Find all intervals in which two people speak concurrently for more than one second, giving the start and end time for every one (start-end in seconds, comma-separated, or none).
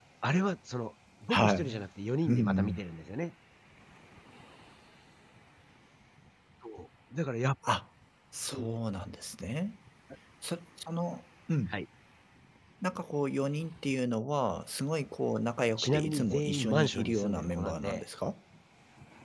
15.8-18.0